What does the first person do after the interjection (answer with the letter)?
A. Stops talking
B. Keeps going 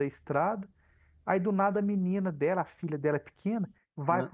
B